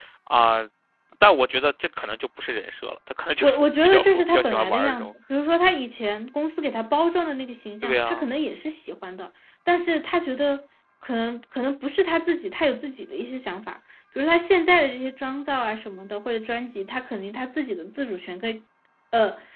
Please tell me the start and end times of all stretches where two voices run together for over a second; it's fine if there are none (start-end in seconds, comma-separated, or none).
3.4-5.1